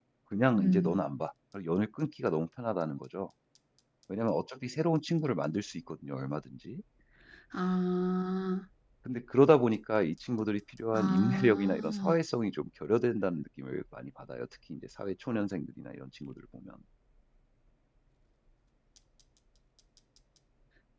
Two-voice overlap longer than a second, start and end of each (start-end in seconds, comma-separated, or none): 10.9-12.1